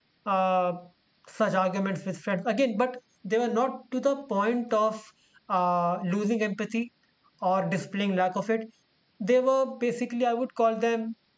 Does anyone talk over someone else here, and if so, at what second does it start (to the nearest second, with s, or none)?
none